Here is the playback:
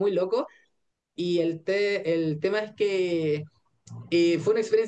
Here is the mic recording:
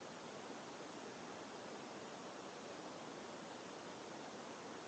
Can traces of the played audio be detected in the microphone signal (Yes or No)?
No